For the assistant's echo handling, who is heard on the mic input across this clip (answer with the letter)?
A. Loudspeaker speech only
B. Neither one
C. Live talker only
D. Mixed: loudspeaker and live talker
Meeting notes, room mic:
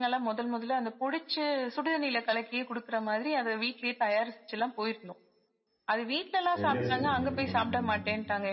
D